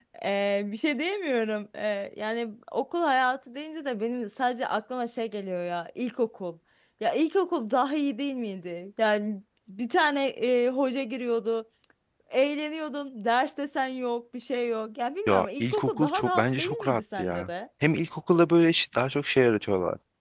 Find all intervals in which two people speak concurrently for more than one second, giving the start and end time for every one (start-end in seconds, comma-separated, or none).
15.3-17.5